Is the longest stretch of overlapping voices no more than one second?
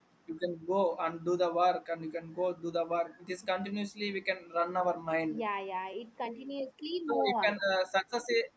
Yes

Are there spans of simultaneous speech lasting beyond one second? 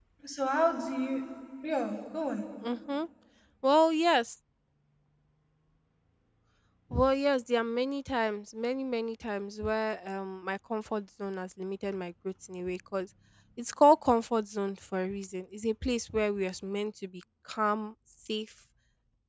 No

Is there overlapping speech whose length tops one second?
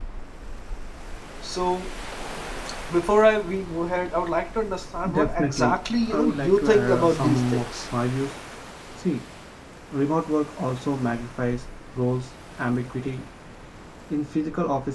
Yes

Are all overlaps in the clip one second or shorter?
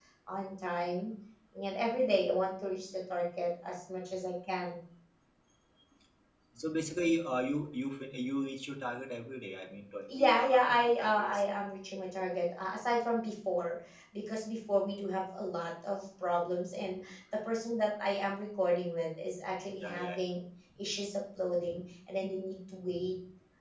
No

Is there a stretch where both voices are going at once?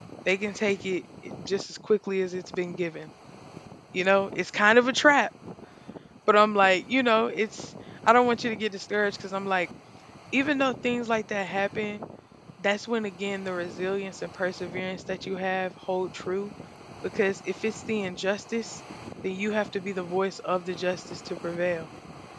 No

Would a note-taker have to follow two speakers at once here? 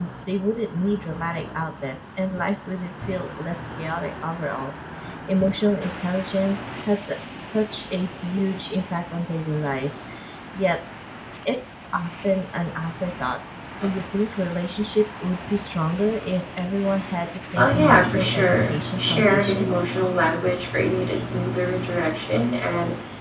Yes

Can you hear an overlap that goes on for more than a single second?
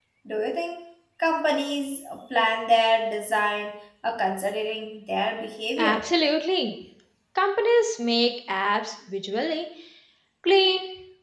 No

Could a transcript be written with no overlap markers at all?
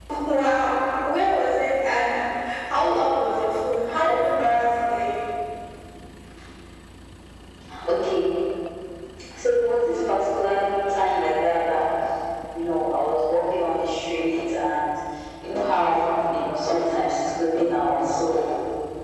Yes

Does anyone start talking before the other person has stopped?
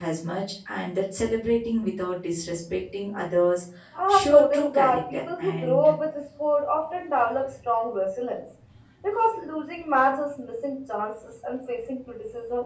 Yes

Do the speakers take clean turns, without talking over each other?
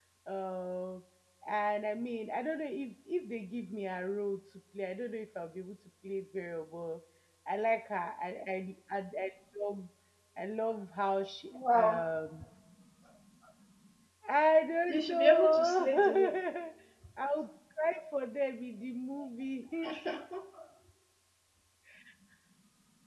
No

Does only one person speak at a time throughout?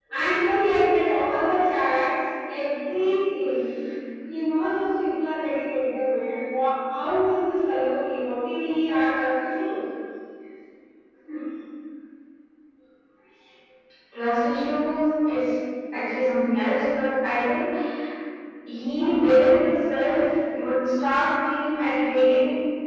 Yes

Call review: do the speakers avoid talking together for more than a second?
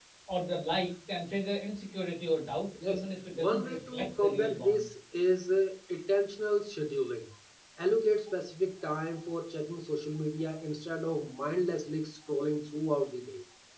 No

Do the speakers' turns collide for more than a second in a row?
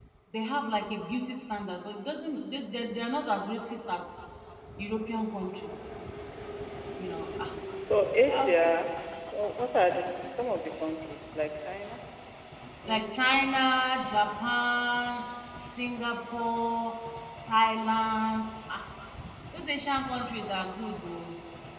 No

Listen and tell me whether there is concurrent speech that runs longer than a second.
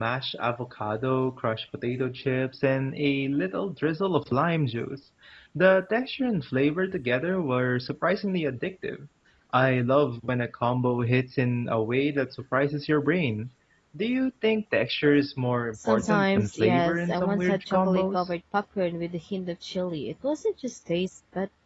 Yes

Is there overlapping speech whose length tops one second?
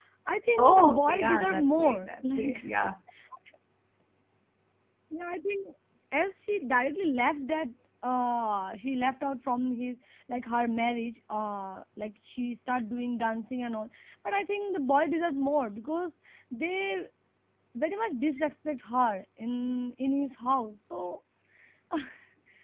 Yes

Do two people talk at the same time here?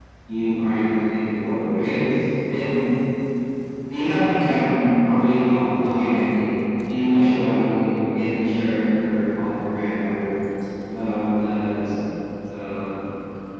No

